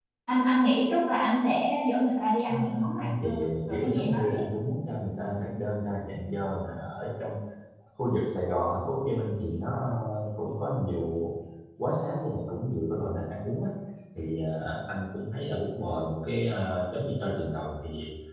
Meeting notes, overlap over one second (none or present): present